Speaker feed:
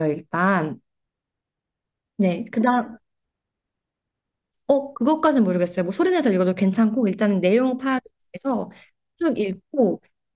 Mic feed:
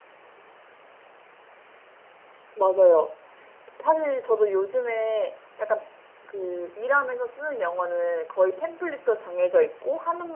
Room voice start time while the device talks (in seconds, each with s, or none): 2.5 s